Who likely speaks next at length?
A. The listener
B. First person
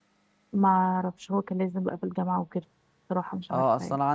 A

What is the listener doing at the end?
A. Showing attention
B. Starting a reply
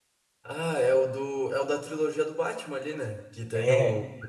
A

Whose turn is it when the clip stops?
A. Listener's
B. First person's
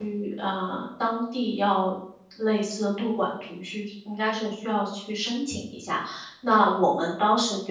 B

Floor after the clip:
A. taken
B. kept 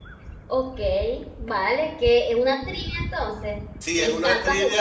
A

